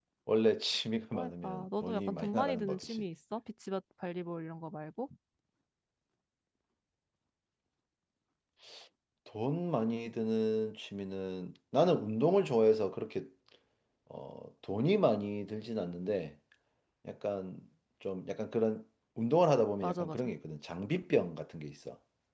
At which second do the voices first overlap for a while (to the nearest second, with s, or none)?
1 s